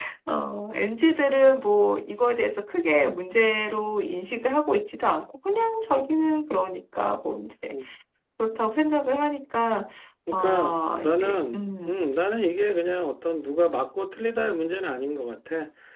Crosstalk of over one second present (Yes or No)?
Yes